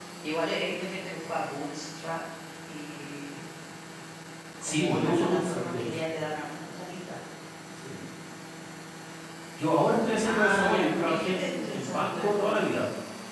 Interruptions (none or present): present